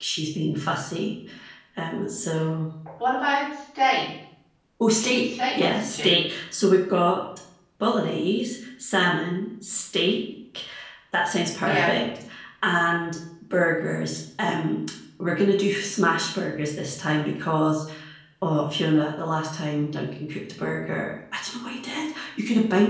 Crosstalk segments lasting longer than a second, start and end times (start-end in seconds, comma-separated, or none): 4.9-6.1